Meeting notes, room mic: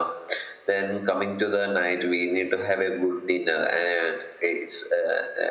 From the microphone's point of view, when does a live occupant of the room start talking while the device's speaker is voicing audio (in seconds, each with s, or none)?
none